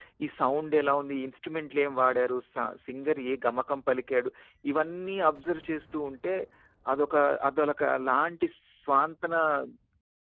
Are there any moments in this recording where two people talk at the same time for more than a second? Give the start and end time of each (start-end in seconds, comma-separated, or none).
none